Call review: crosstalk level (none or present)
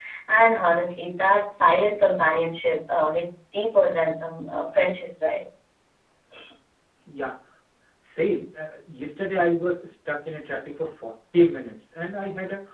none